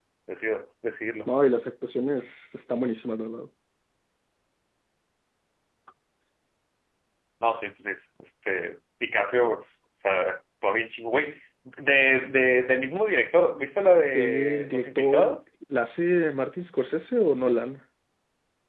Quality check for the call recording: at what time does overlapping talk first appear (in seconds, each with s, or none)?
14.1 s